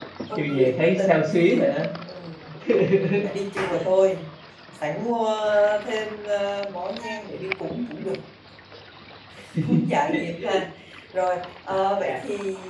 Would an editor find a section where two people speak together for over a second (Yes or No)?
Yes